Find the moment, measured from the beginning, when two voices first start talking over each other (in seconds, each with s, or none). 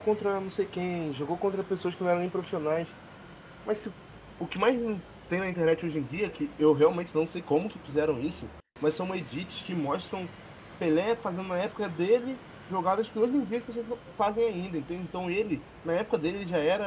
none